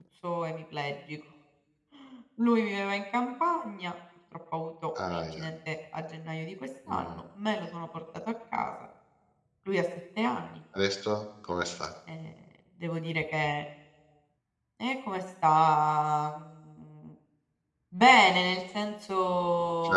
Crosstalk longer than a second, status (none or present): none